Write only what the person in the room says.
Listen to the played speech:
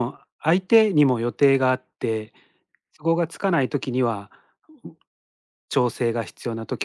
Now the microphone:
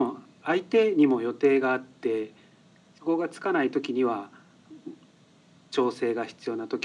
none

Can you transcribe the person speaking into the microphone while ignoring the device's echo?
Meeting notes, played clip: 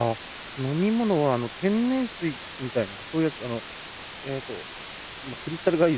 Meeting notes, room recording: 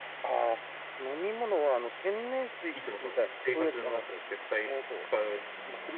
いつもその生活の中で絶対使う

